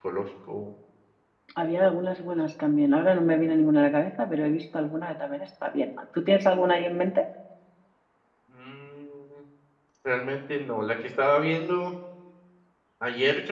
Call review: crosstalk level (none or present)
none